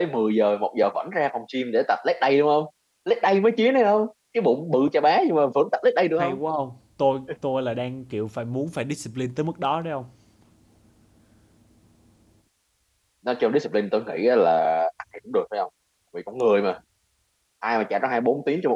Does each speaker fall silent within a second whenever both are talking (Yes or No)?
Yes